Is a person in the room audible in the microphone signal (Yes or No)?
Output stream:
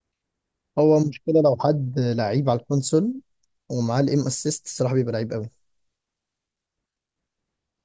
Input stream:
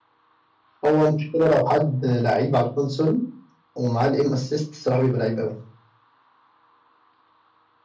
No